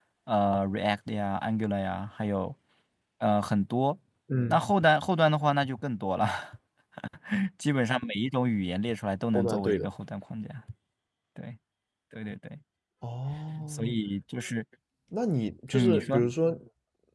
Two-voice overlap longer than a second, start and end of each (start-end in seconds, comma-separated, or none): none